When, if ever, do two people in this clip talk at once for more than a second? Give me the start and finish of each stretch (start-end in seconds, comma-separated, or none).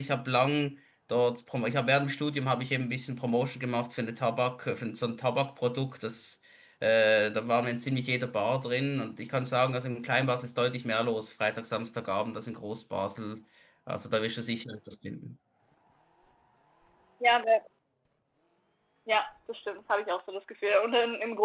none